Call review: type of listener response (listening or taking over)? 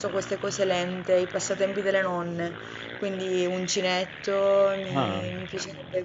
listening